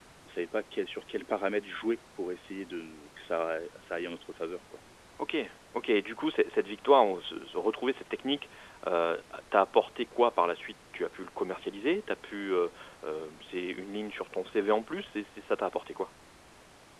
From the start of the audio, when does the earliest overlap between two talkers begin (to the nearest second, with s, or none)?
none